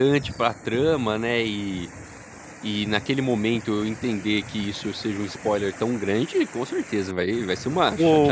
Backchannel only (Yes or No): No